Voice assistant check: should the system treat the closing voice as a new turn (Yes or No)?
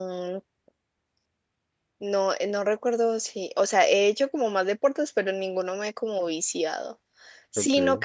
No